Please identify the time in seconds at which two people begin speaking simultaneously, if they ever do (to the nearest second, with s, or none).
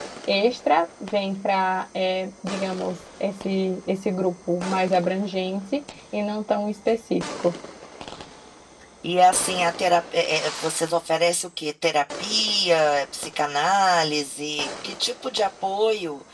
none